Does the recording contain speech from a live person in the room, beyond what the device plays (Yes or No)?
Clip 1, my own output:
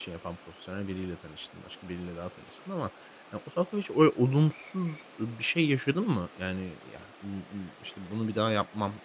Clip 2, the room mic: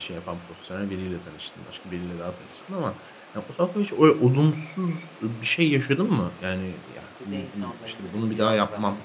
Yes